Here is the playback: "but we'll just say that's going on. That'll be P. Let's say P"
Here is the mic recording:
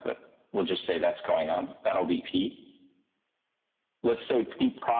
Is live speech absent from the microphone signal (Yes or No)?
Yes